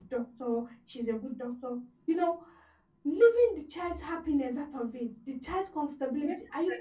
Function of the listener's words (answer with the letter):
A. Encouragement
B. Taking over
A